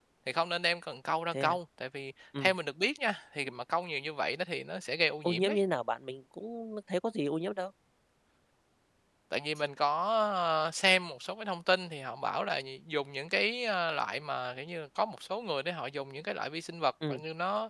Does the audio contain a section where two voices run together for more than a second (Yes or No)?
No